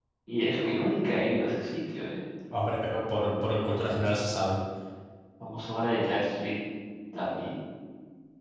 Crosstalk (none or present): none